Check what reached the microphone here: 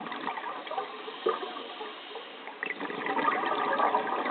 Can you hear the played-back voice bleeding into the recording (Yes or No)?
No